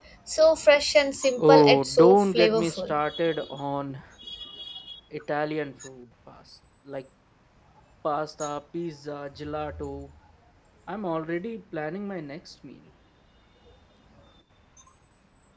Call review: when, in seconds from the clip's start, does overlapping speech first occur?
1 s

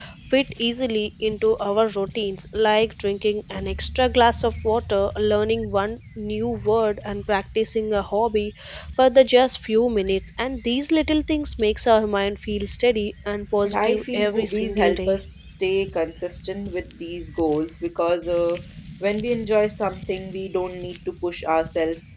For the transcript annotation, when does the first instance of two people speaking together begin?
14 s

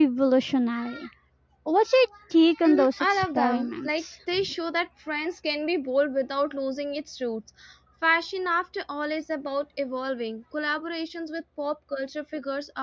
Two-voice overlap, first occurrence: 3 s

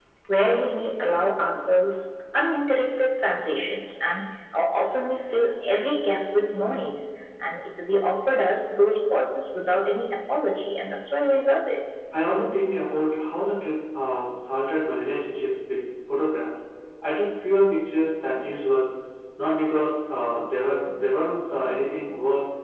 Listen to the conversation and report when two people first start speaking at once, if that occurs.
none

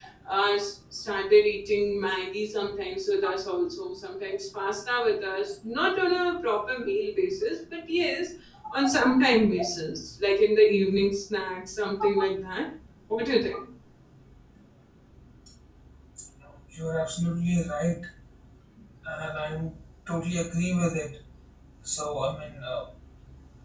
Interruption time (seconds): none

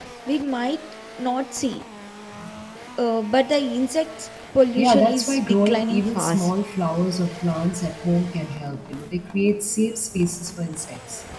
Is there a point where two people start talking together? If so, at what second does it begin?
5 s

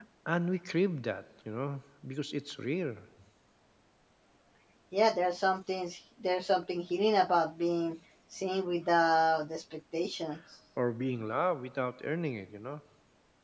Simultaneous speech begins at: none

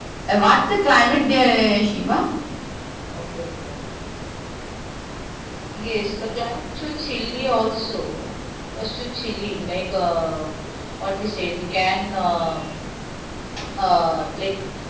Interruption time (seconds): none

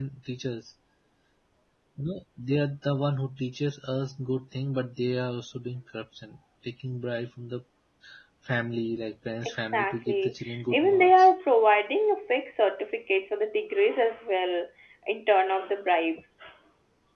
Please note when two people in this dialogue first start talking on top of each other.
9 s

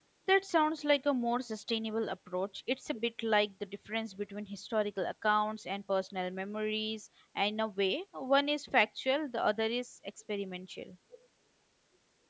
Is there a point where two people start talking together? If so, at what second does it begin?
none

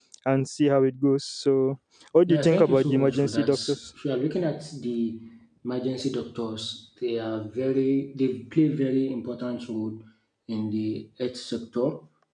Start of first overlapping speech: 2 s

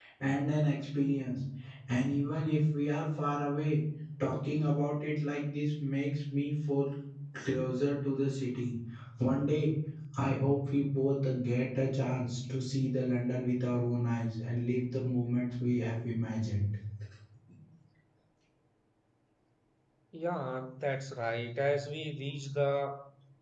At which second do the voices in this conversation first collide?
none

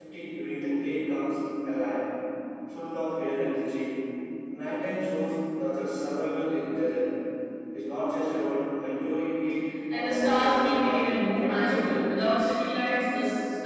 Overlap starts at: 10 s

